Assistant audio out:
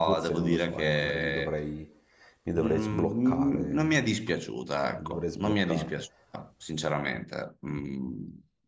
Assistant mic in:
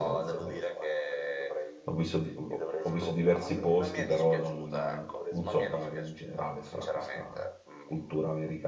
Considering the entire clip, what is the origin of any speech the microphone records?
both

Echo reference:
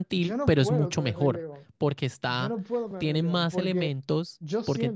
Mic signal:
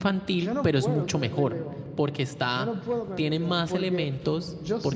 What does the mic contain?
echo only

